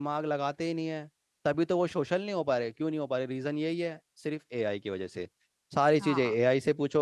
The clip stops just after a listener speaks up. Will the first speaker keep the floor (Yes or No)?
Yes